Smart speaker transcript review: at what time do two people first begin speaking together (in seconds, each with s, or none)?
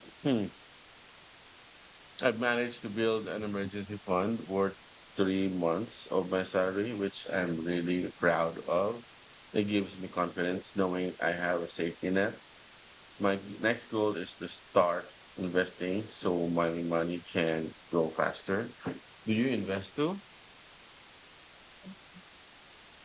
none